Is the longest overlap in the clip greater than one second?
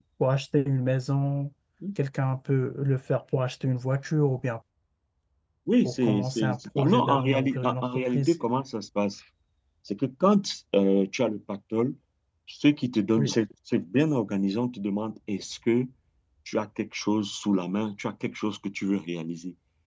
Yes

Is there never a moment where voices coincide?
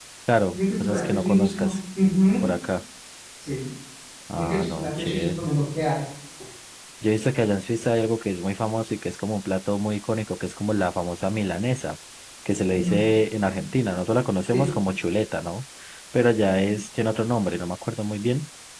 No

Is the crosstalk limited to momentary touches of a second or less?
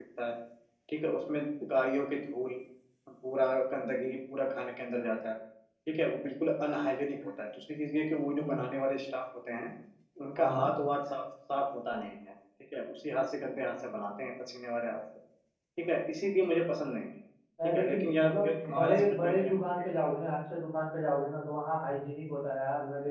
No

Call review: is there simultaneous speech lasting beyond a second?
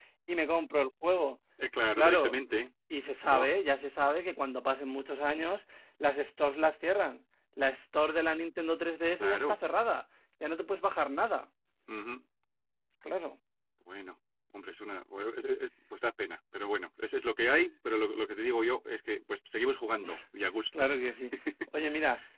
No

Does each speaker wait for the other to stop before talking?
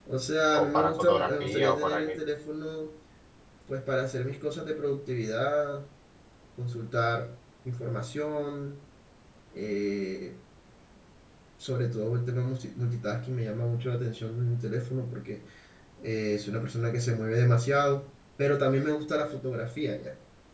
No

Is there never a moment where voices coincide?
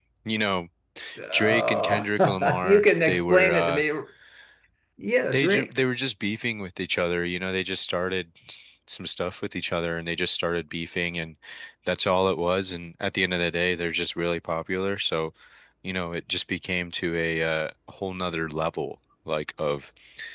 No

